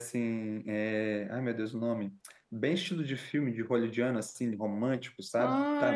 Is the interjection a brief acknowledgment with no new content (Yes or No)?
No